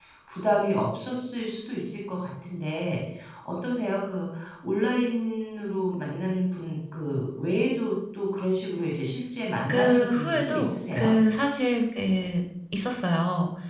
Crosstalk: present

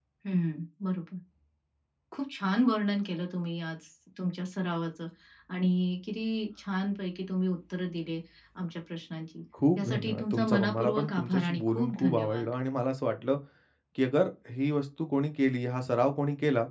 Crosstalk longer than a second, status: present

